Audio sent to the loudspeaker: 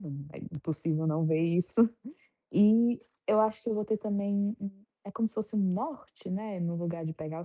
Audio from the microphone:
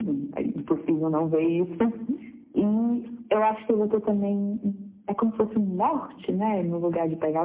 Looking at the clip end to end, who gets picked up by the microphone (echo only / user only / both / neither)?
echo only